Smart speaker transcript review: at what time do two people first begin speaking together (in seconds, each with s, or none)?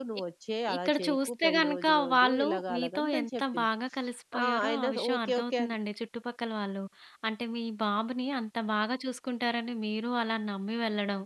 0.8 s